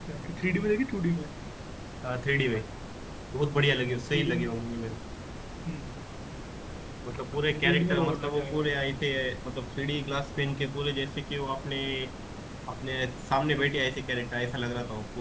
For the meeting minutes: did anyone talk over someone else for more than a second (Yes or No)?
Yes